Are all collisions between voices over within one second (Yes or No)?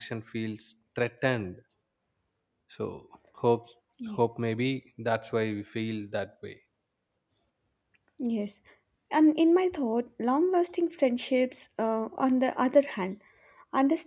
Yes